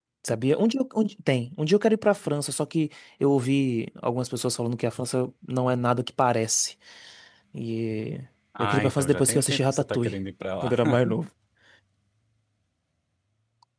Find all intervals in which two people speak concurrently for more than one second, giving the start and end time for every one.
8.6-10.2

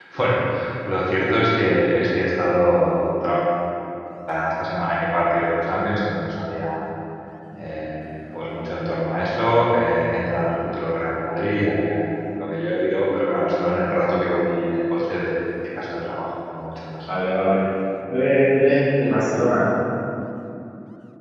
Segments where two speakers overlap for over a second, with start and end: none

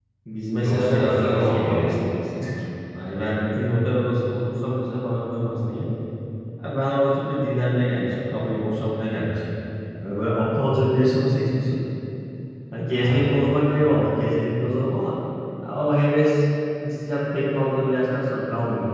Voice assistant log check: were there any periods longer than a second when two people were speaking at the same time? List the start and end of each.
0.6-2.0

